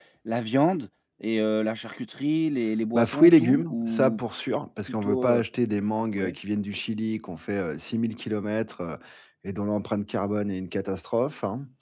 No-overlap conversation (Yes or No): No